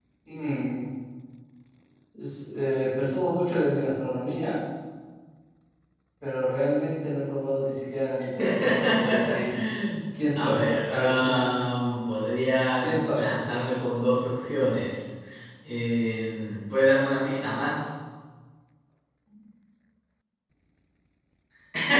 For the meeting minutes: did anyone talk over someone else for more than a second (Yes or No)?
Yes